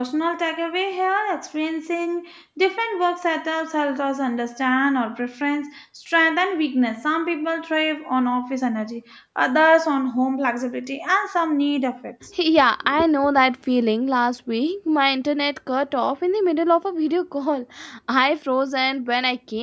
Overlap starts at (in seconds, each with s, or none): none